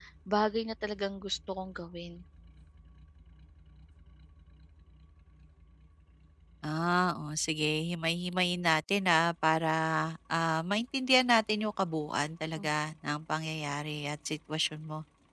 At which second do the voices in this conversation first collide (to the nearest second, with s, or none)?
none